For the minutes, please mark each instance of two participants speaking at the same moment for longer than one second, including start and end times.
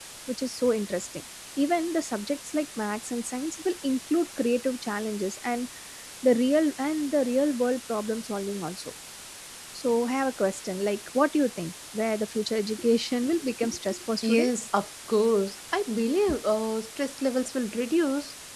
none

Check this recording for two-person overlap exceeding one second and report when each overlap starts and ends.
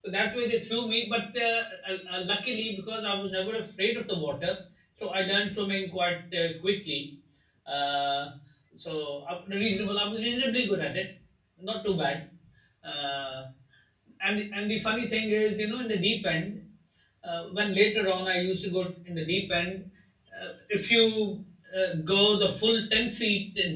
none

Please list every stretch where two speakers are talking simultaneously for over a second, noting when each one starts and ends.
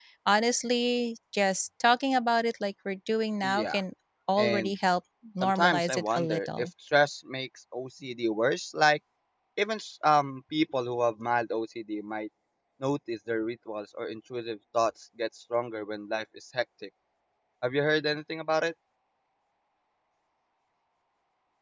5.4-6.7

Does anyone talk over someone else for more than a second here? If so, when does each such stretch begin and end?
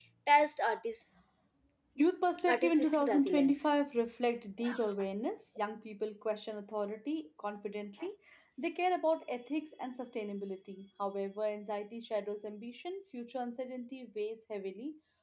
2.5-3.7

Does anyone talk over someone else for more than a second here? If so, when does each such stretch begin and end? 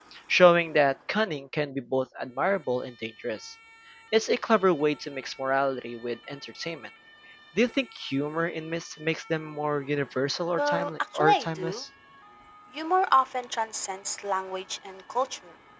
10.6-11.8

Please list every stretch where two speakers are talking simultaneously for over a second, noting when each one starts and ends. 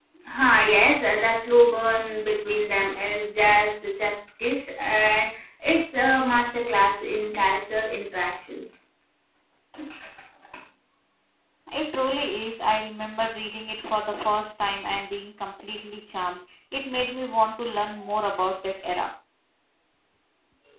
none

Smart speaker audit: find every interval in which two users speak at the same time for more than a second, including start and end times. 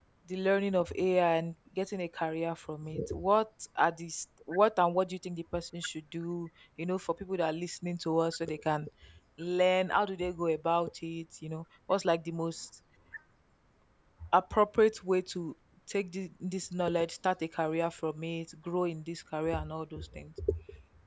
none

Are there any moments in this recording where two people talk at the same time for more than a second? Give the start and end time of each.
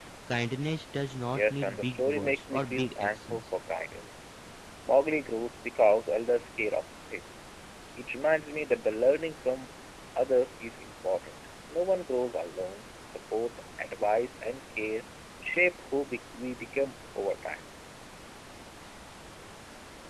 1.3-3.4

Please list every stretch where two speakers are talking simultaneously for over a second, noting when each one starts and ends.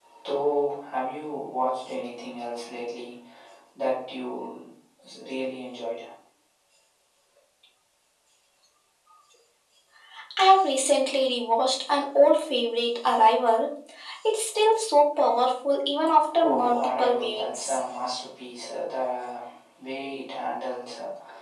16.4-17.8

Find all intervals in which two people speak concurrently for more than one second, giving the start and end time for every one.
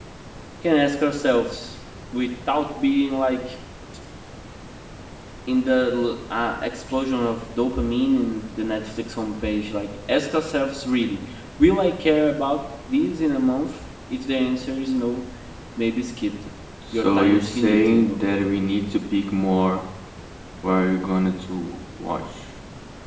16.9-18.2

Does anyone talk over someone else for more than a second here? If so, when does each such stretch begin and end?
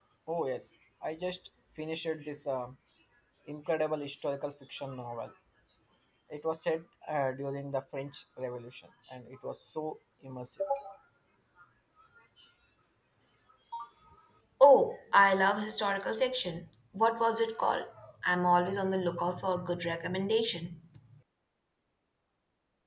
none

